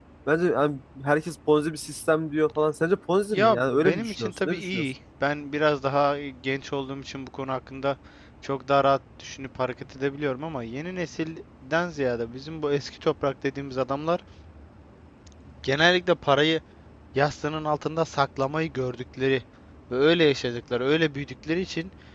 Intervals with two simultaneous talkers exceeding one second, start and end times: 3.3-4.8

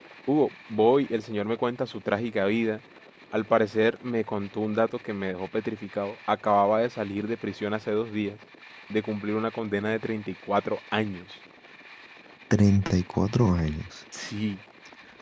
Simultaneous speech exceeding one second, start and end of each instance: none

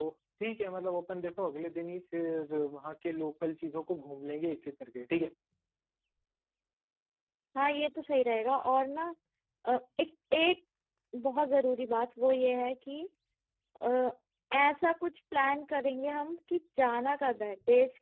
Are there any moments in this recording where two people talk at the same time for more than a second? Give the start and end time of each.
none

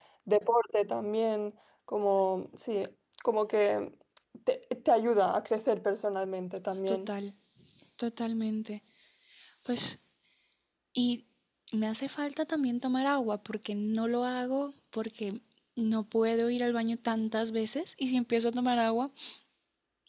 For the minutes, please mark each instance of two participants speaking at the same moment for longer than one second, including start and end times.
none

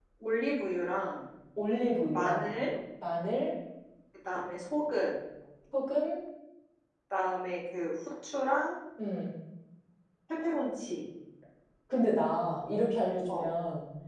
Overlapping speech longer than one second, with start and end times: none

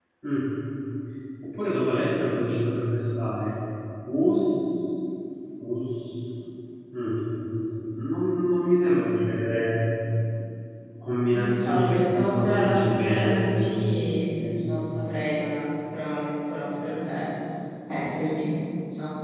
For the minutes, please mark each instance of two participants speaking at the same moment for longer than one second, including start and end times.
11.3-13.4

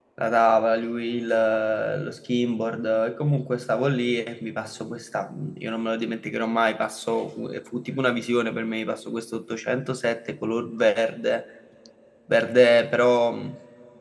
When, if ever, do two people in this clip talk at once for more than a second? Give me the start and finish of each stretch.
none

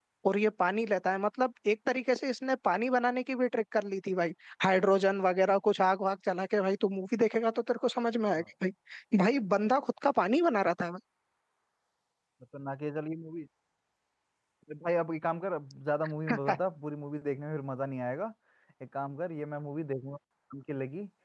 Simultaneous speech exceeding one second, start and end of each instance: none

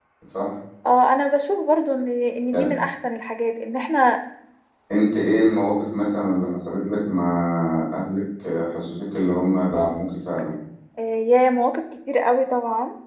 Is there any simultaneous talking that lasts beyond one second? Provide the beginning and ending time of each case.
none

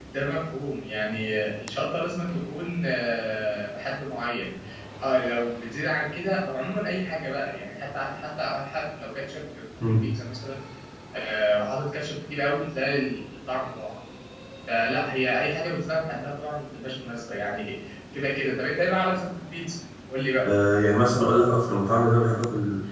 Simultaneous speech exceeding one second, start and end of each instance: none

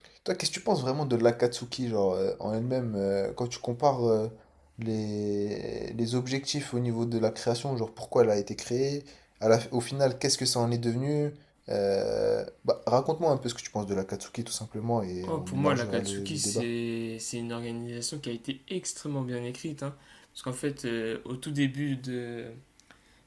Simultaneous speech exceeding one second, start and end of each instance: 15.3-16.6

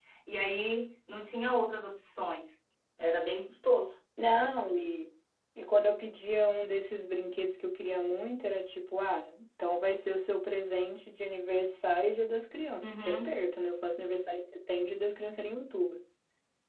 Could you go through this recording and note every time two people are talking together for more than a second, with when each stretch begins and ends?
none

